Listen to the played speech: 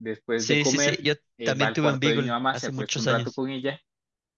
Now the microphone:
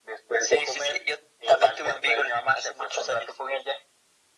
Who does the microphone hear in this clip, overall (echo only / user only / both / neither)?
echo only